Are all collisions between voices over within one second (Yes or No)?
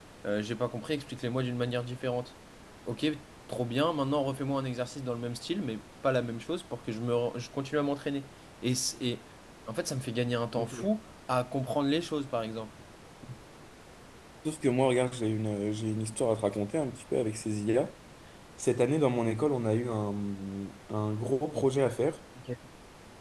Yes